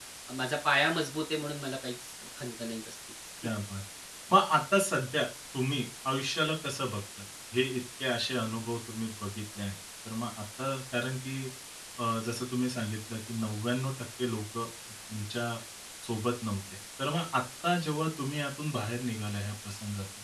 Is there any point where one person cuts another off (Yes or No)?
No